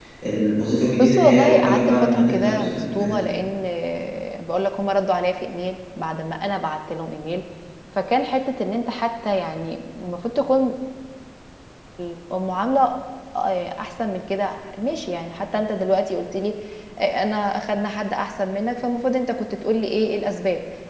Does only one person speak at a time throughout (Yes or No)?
No